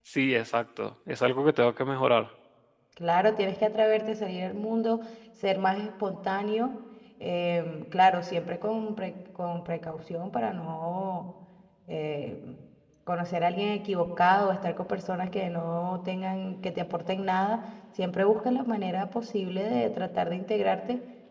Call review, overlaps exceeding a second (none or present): none